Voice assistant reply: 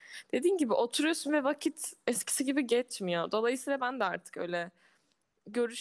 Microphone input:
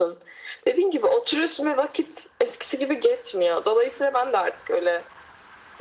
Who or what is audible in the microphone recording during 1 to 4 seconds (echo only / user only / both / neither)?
echo only